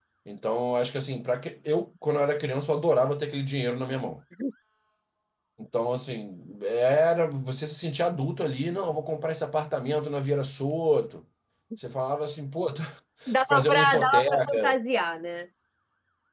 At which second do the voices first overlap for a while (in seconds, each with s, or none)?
13.3 s